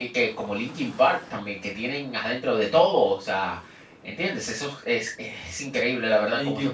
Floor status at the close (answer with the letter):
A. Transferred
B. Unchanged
A